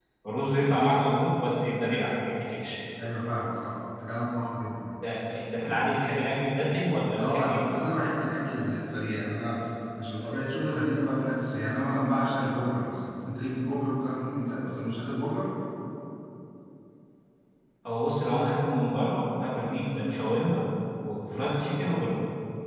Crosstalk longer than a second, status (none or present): none